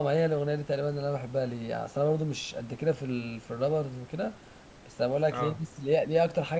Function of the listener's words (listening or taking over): listening